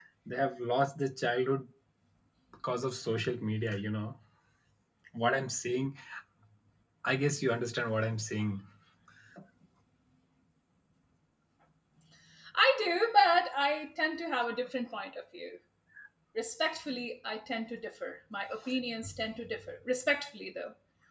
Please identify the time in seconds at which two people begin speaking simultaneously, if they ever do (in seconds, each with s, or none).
none